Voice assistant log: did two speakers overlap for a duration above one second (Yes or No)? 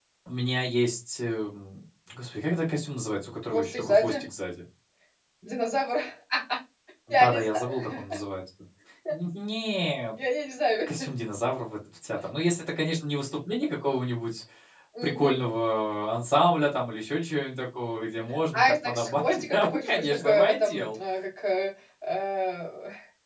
Yes